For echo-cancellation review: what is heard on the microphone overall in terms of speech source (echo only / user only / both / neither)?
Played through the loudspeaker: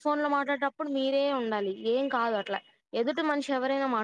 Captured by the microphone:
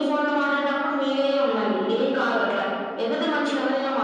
echo only